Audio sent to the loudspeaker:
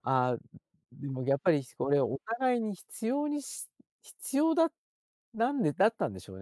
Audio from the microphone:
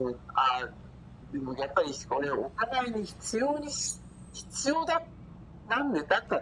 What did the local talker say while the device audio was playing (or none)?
none